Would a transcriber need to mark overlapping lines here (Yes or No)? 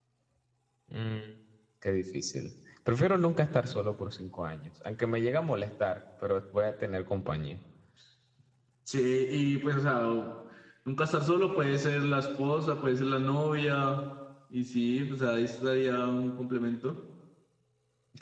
No